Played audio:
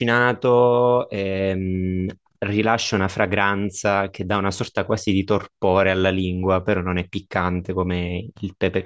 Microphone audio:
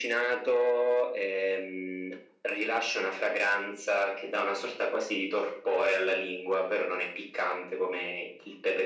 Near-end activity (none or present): none